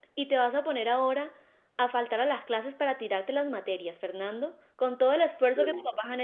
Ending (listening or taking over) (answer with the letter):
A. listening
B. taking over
A